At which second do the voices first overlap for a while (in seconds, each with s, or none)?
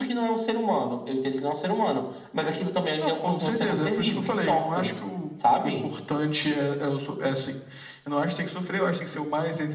3.0 s